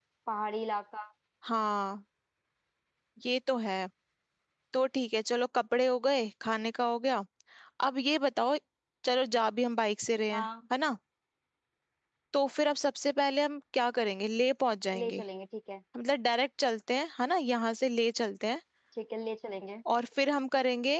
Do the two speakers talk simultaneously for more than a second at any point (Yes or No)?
No